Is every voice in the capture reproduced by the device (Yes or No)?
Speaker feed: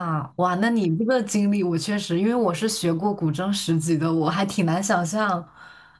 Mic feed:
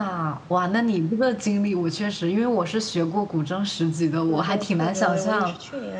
No